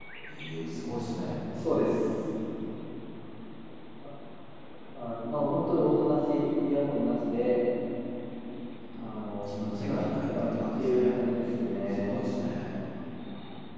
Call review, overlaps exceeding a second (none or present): present